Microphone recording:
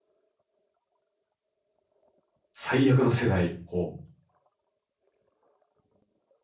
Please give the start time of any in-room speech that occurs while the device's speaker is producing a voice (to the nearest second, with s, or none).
3 s